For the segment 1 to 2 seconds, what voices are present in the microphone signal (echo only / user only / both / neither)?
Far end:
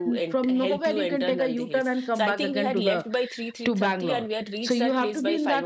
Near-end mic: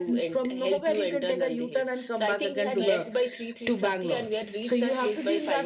echo only